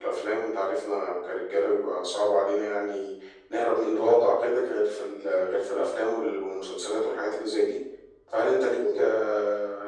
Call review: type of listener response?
listening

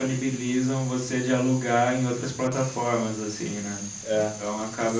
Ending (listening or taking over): listening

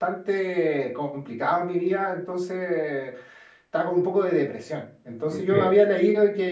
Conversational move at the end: listening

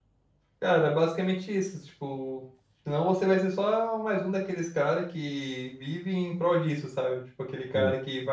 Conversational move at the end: listening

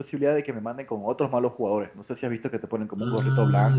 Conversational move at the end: taking over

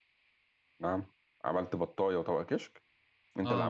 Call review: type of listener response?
taking over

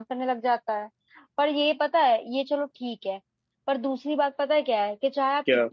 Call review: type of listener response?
listening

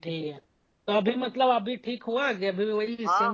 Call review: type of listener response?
taking over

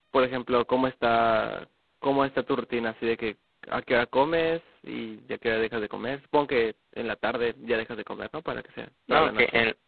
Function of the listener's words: taking over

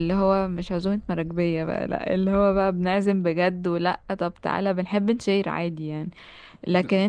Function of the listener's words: listening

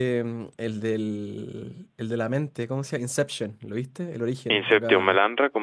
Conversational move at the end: taking over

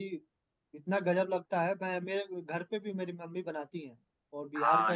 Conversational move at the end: taking over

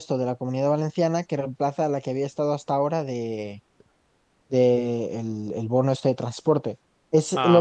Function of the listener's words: listening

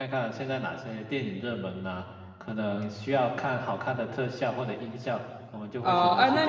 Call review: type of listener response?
taking over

